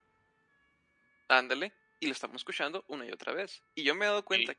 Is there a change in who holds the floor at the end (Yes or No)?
No